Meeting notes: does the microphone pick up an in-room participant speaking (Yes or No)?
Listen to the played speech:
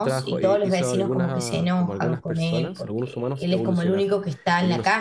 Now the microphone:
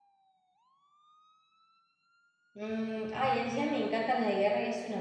Yes